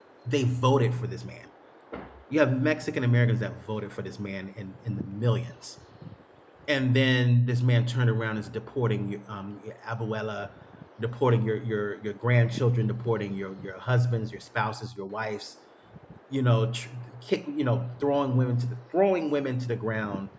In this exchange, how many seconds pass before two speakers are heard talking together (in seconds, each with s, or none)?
none